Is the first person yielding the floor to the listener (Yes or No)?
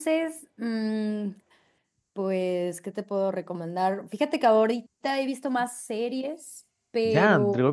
Yes